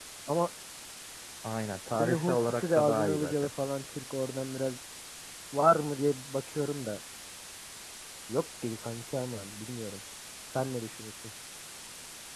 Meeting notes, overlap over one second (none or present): present